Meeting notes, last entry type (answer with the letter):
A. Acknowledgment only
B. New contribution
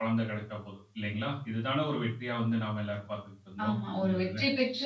B